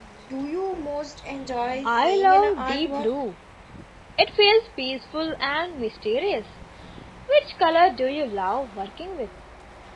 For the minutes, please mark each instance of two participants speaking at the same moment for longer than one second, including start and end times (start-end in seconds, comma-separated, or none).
1.9-3.1